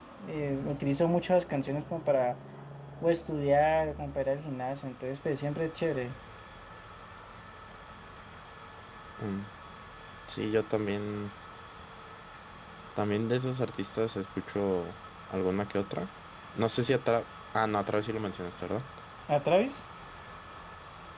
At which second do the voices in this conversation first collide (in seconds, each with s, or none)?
none